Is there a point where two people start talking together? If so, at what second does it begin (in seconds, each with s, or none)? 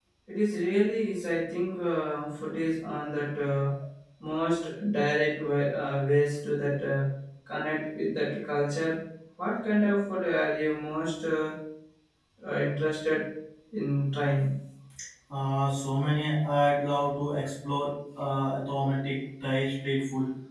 none